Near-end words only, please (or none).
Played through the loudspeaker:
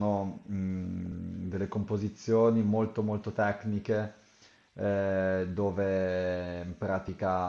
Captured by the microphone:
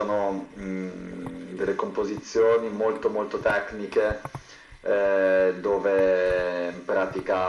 none